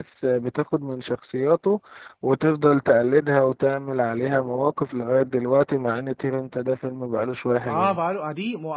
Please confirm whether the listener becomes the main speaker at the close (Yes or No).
Yes